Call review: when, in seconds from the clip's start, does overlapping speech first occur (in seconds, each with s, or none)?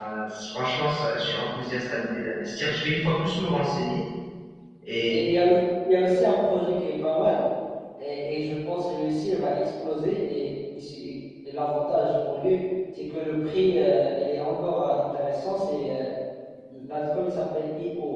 none